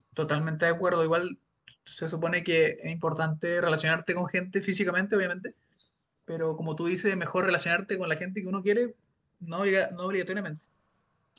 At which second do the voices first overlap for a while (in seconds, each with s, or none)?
none